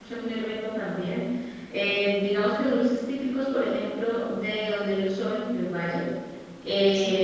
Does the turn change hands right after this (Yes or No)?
No